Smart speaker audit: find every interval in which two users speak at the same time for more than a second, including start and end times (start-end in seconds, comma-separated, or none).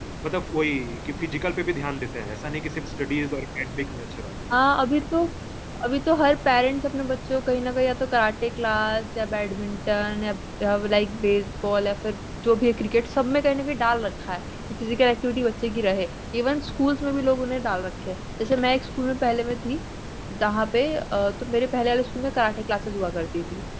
none